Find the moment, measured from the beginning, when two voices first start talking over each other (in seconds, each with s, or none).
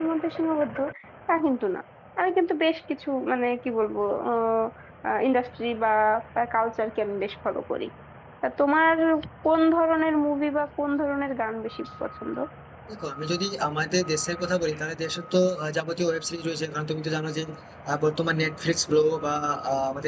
none